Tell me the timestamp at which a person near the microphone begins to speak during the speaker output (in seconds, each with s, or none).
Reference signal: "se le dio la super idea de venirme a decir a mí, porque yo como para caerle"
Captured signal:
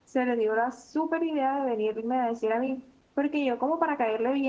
none